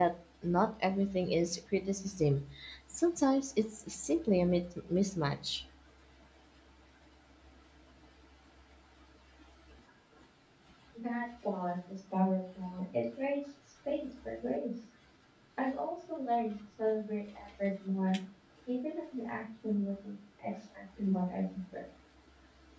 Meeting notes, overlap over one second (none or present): none